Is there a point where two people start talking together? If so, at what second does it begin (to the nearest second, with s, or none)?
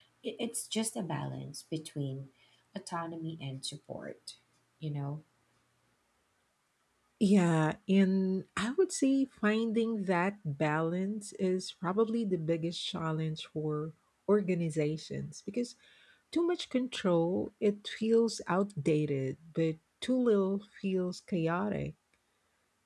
none